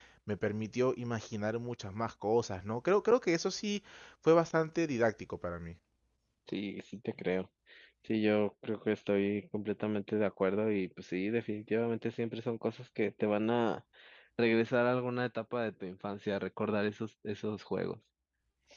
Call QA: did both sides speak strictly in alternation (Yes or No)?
Yes